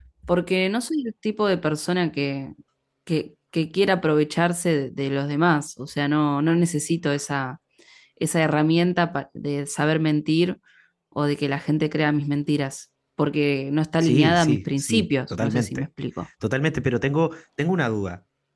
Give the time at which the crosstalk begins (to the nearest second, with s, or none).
14 s